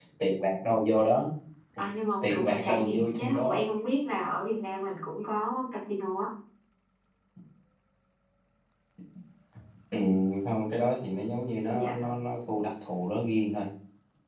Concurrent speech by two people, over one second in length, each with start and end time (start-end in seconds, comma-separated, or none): 2.2-3.6